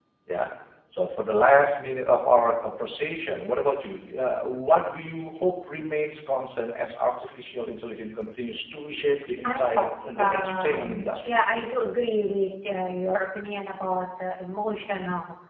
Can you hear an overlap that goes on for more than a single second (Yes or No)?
Yes